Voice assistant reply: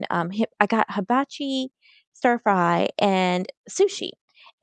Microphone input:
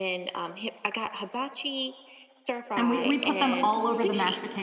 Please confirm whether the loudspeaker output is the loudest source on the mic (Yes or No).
No